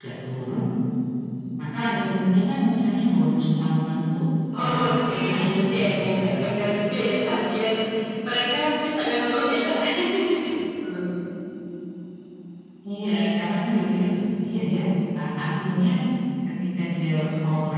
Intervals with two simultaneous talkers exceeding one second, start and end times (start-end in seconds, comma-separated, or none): 4.6-6.3